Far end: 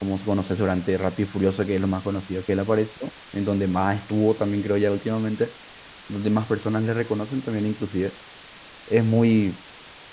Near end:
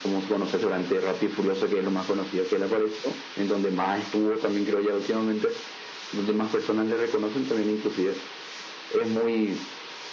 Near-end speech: none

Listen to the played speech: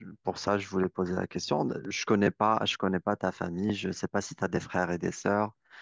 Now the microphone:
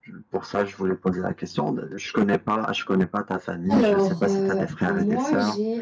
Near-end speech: present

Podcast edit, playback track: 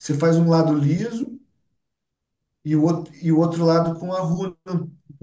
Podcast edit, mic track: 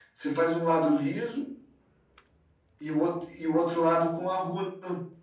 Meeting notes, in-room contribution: none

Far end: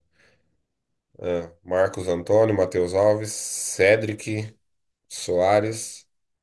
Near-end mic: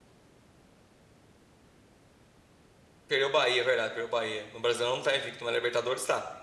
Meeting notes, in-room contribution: present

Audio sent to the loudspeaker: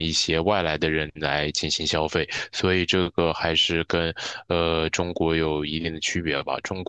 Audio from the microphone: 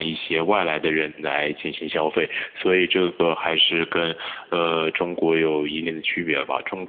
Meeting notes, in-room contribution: none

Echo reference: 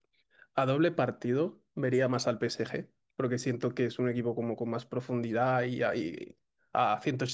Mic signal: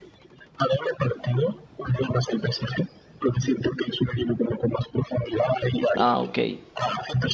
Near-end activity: present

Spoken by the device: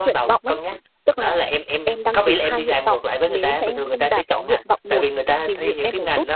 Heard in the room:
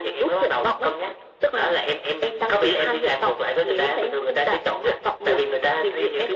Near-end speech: none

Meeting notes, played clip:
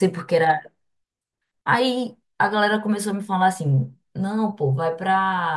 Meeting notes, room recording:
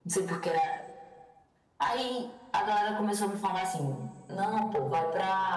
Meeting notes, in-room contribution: none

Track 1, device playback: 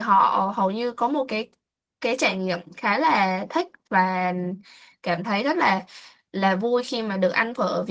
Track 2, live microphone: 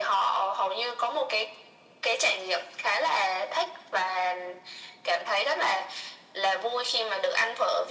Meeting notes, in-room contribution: none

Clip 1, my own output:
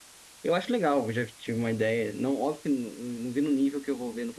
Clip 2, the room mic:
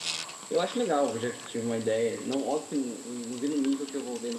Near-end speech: none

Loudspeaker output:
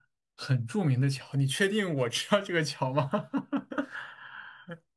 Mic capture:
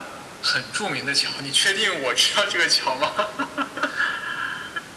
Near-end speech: none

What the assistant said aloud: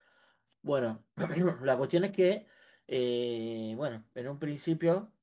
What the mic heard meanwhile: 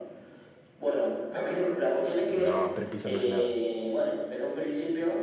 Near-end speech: present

